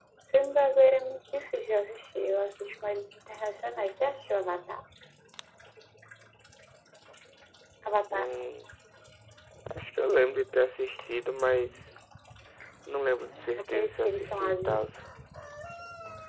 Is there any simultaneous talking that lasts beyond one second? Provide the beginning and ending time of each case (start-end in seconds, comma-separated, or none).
13.6-14.9